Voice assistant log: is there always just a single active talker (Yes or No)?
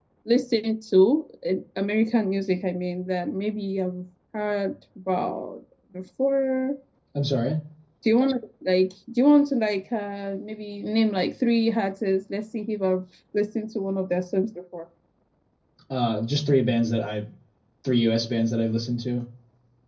Yes